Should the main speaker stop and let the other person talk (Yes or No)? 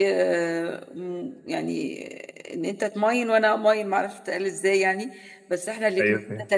No